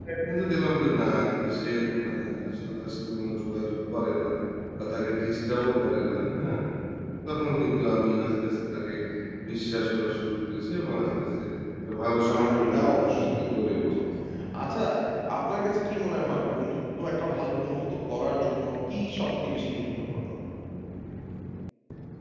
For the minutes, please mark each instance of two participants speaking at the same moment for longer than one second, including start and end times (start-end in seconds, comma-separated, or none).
12.3-13.9